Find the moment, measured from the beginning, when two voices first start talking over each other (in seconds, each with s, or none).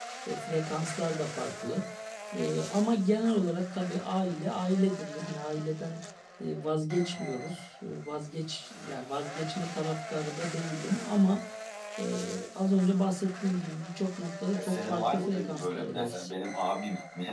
14.5 s